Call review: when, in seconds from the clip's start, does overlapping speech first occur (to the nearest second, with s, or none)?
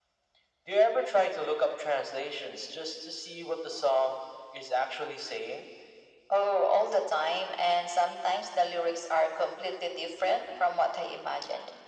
none